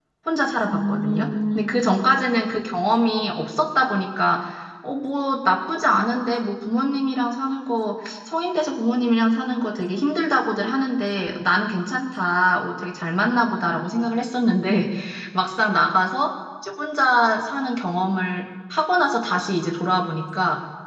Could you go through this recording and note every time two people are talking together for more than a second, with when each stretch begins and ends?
0.7-2.0

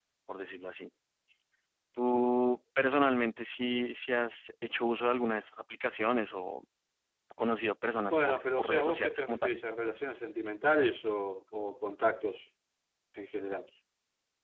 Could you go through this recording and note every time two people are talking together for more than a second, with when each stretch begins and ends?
8.1-9.6

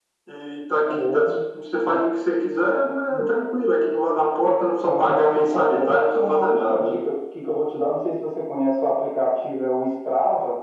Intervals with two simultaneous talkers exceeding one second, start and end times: 4.8-7.0

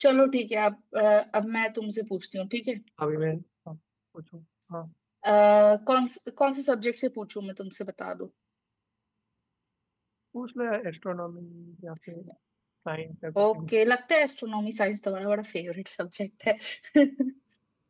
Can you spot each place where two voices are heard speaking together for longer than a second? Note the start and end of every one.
none

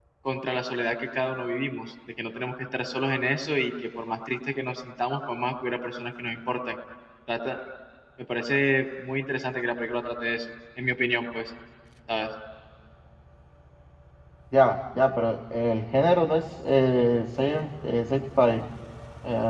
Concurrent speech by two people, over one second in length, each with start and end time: none

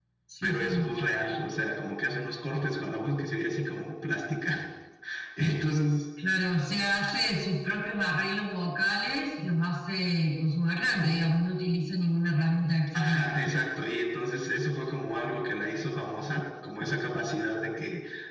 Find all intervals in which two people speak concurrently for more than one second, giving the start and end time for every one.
none

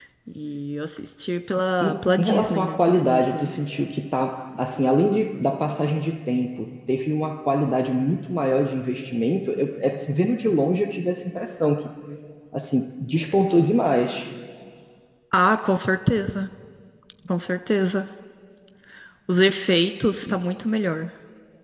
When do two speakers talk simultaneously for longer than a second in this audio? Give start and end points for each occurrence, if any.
1.8-3.5

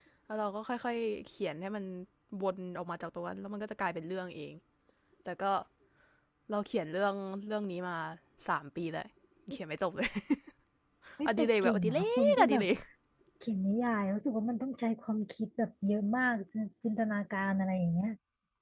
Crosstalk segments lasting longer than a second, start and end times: 11.3-12.6

